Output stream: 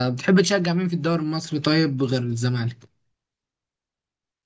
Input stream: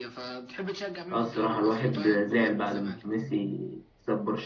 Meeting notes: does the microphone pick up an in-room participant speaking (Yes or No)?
Yes